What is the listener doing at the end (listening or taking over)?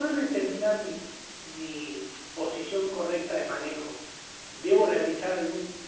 listening